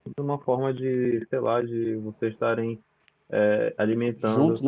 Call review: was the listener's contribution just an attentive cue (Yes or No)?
Yes